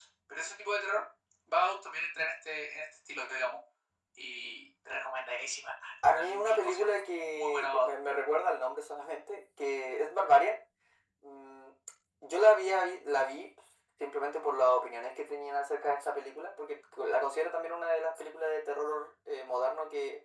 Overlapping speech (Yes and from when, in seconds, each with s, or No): Yes, from 6.0 s